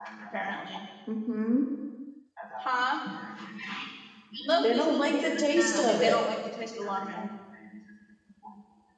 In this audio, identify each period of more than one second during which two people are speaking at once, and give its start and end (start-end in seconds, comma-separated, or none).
4.6-6.2